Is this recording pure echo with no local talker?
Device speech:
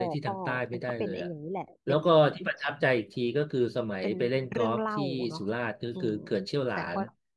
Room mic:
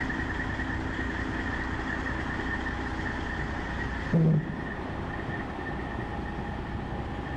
No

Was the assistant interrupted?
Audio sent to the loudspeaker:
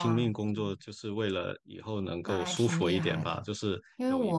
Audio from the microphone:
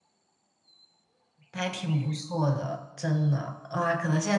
Yes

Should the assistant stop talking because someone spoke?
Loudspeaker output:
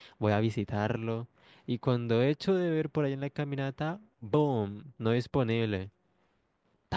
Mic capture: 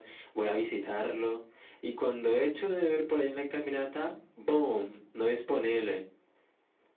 No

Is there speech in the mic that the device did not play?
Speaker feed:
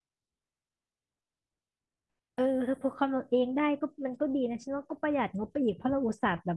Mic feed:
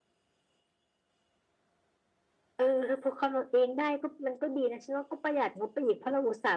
No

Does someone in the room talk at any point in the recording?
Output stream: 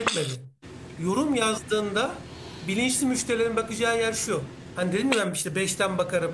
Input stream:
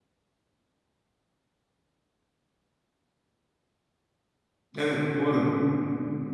Yes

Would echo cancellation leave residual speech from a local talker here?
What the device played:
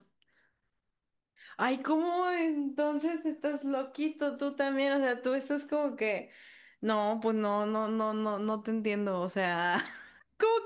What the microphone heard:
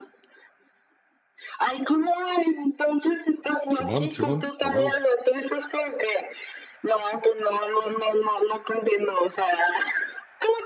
Yes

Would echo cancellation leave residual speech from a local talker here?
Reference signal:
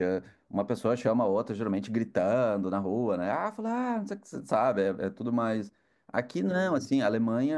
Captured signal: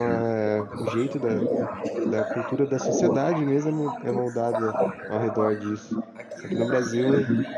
Yes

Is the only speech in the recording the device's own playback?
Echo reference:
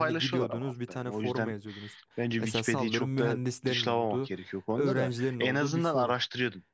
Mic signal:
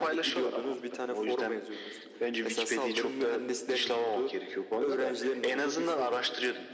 Yes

